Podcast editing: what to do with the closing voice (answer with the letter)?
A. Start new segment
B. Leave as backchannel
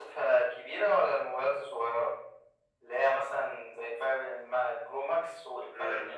A